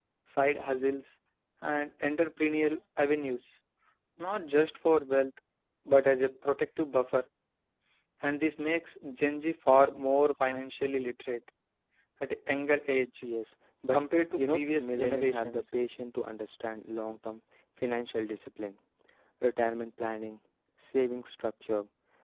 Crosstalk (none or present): present